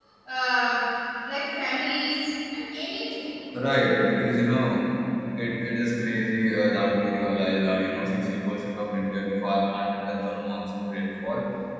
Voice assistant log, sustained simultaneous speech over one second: none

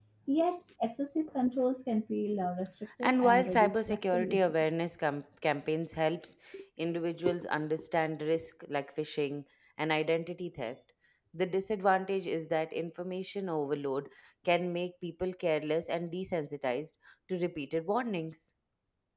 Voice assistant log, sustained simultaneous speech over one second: present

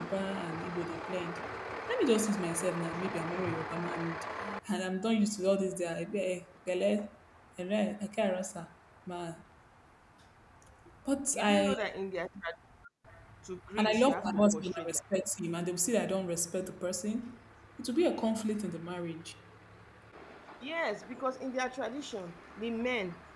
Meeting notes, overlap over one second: present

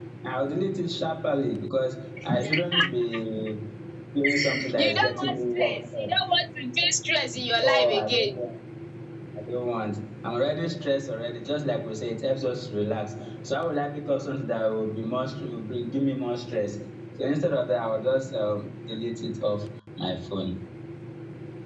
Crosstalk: present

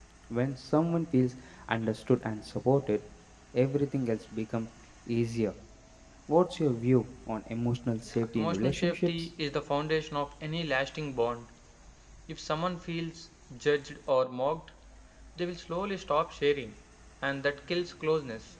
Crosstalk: present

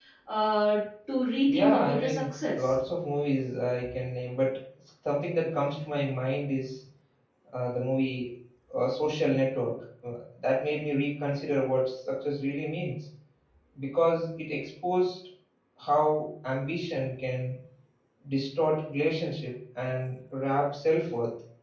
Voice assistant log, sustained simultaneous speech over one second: present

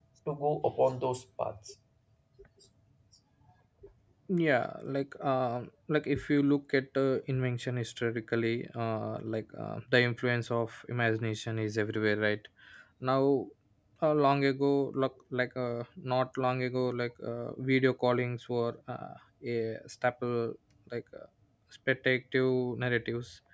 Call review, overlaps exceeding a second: none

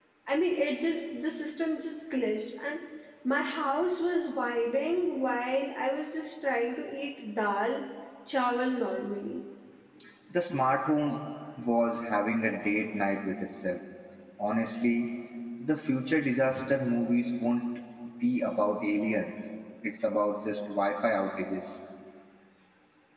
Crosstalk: none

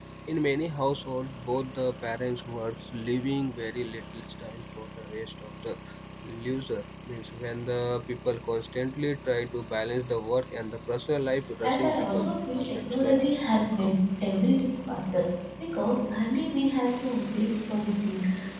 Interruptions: present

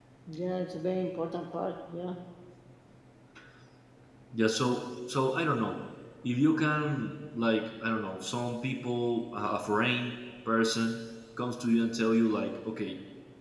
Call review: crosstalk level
none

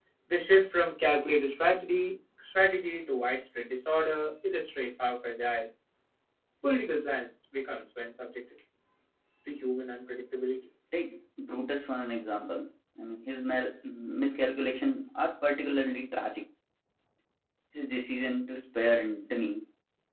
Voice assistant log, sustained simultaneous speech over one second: none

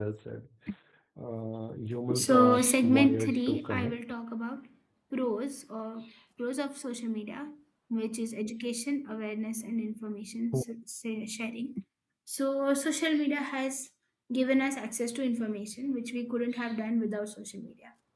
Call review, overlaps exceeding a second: present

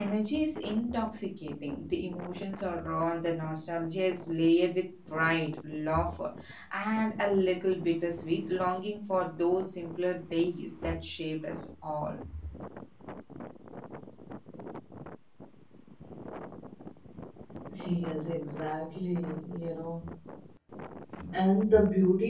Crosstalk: none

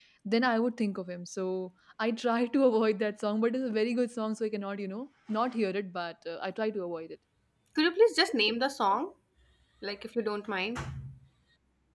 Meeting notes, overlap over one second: none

